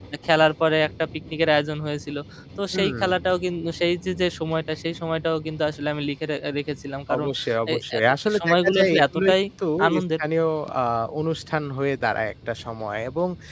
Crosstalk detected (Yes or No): Yes